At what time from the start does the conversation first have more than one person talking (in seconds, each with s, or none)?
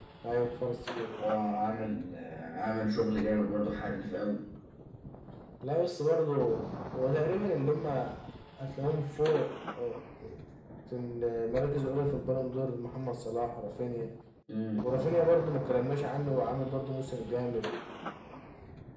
none